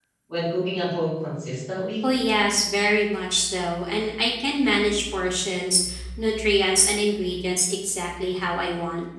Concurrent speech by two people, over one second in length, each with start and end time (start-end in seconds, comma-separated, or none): none